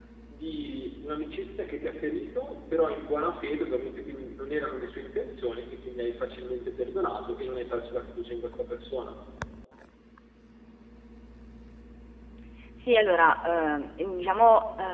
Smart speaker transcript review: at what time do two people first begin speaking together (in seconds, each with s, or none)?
none